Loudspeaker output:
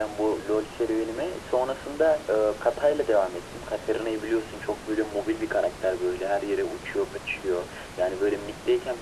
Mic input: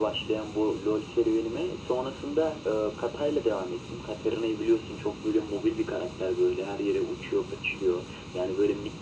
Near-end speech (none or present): none